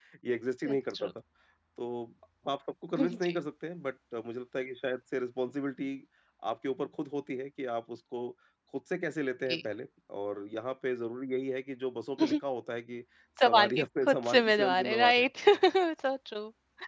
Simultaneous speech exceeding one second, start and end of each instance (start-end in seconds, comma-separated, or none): 13.4-15.2